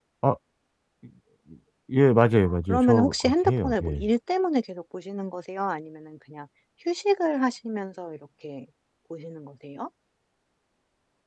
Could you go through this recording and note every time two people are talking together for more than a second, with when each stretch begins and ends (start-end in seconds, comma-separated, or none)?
2.4-4.0